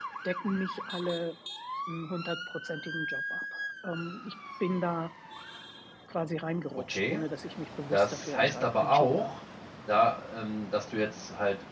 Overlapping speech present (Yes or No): Yes